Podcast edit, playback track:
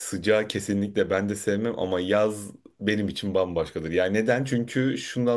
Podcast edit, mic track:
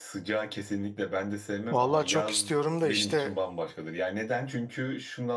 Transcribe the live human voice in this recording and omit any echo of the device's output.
Vallahi çok istiyorum da işte

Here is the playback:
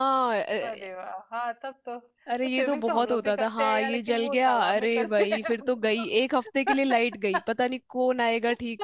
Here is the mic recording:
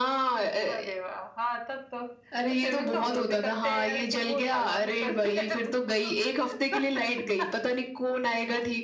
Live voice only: none

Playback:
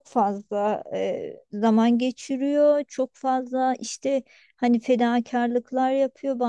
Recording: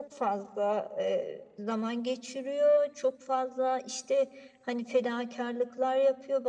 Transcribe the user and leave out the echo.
none

